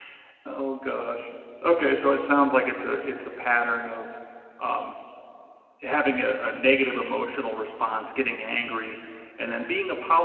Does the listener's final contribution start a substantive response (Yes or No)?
No